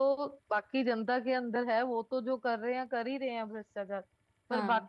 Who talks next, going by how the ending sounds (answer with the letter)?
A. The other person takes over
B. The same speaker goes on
B